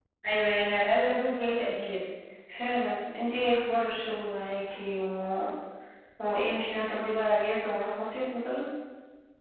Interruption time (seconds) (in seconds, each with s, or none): none